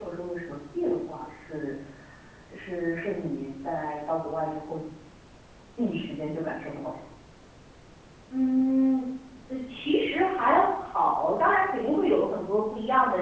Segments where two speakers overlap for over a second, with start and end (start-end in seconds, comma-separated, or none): none